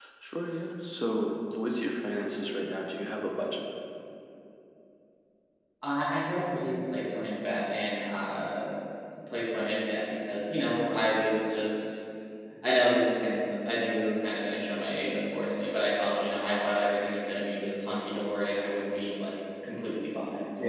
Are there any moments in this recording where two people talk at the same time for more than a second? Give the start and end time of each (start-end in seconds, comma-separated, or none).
none